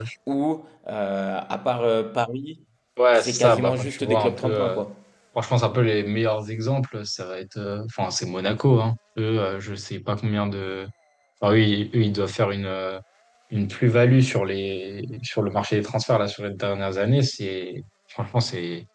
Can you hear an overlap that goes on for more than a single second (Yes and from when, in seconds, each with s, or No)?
Yes, from 3.2 s